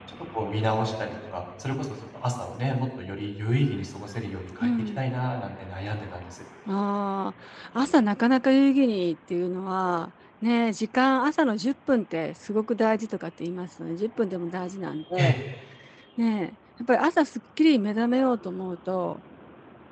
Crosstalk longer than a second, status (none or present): none